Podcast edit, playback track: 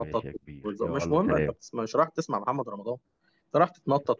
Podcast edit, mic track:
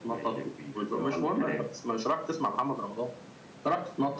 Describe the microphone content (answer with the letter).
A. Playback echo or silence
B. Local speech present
A